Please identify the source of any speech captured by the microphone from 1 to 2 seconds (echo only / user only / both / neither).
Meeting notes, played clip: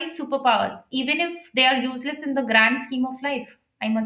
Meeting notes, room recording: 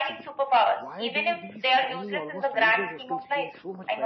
both